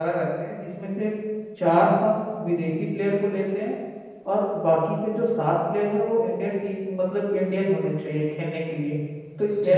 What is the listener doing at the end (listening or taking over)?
taking over